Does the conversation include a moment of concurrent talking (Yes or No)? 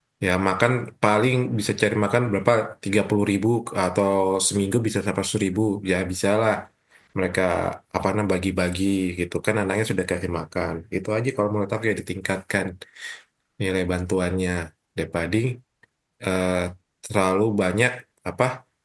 No